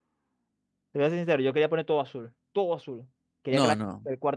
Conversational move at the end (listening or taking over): listening